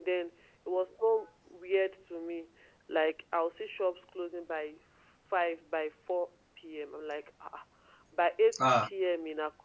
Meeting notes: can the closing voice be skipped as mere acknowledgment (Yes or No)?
Yes